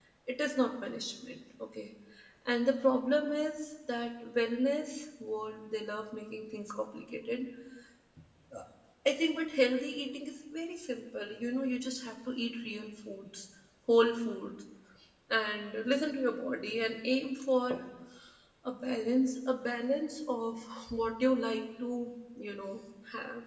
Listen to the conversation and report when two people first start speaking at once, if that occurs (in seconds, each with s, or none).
none